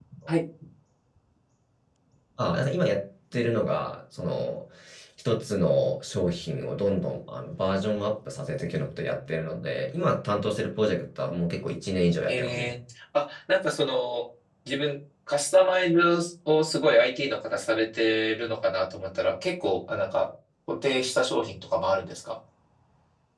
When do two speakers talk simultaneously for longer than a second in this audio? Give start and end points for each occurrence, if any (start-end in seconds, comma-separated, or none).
none